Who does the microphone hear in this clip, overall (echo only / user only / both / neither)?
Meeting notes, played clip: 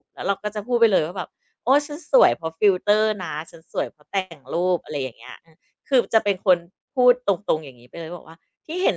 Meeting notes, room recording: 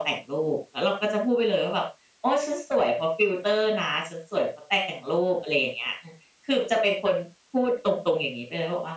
echo only